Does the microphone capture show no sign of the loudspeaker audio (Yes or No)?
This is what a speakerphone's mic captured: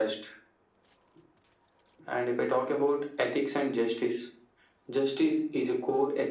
No